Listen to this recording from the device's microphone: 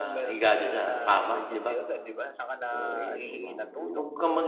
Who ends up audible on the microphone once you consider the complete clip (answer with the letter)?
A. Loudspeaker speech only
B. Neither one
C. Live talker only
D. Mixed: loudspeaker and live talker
D